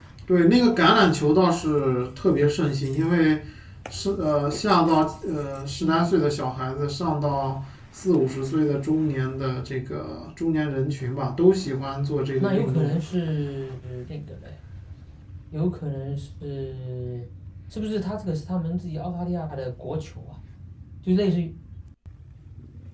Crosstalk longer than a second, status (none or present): none